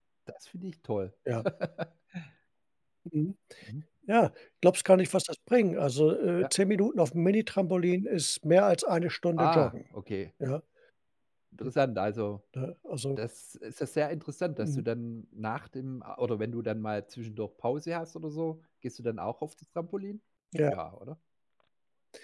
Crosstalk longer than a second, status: none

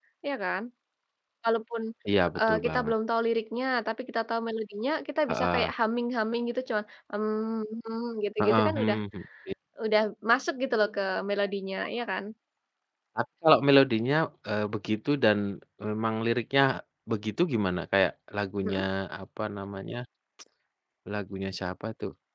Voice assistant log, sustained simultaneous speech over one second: none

